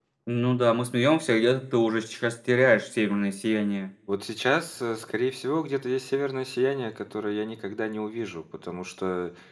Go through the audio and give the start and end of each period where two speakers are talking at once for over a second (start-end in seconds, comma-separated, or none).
none